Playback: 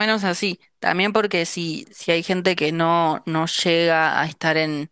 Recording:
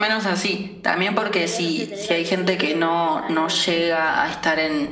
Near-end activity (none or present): present